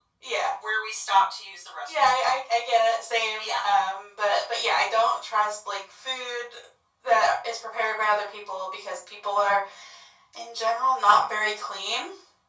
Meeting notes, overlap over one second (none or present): none